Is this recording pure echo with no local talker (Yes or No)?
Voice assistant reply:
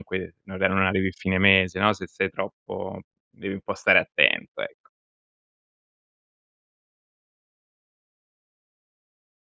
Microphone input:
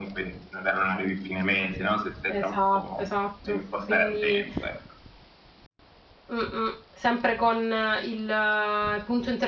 No